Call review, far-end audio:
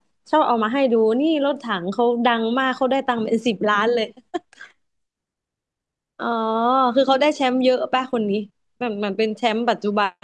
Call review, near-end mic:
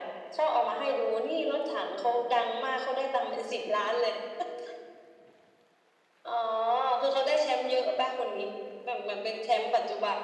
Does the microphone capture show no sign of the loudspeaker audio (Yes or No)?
No